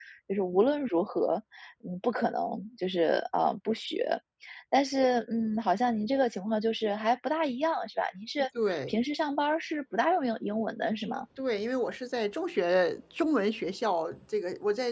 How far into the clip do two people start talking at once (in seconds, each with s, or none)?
none